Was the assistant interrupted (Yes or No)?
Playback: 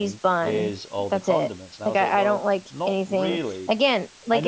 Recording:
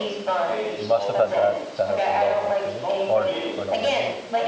Yes